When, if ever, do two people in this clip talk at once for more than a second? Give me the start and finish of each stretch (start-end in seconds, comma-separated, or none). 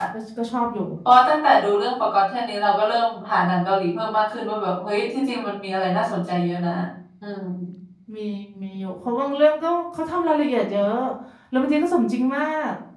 none